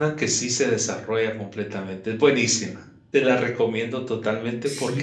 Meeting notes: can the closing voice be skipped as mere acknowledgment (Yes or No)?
No